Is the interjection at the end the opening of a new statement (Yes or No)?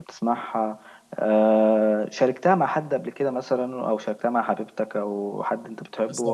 Yes